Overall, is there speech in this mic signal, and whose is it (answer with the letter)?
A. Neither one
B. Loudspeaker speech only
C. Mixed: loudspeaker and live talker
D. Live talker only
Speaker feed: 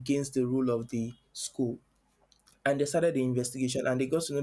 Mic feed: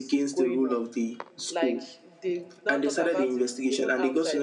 C